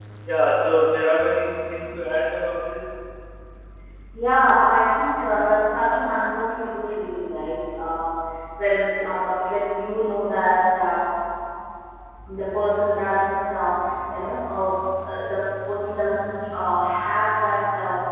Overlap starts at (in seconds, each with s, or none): none